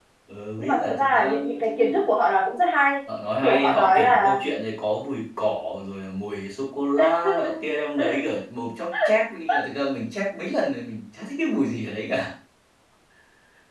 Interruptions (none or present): present